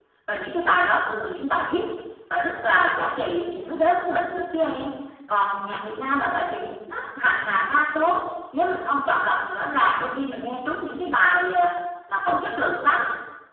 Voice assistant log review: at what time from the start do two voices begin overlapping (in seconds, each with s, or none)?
none